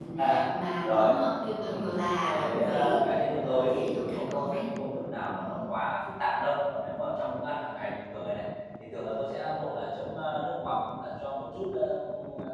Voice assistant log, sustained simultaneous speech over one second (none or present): present